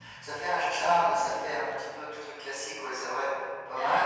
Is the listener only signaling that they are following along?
No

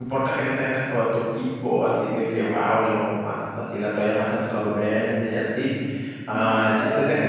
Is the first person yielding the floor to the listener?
No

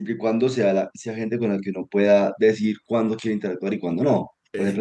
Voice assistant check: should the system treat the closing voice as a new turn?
No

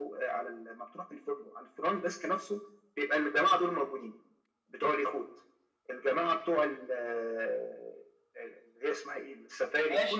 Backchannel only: No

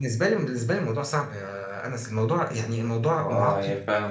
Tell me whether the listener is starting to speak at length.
Yes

